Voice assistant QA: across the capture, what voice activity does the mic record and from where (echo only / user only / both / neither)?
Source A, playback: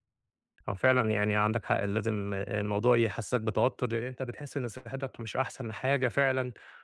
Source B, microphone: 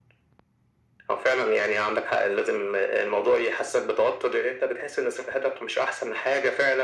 echo only